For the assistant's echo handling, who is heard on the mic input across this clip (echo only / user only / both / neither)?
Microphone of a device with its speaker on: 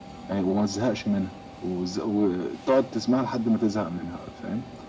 echo only